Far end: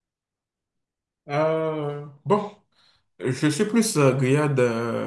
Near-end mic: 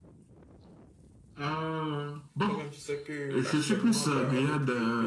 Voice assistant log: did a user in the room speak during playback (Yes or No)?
Yes